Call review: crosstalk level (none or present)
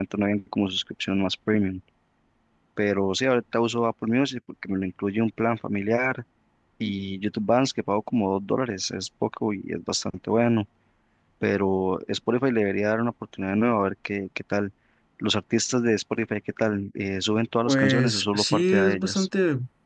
present